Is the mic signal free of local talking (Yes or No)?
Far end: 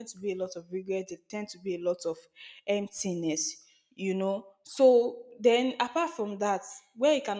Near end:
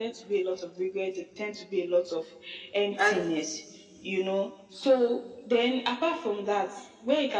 No